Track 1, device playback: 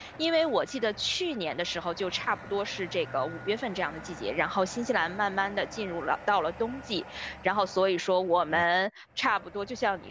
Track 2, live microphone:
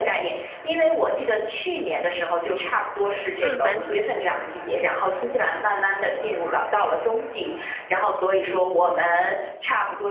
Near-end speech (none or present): present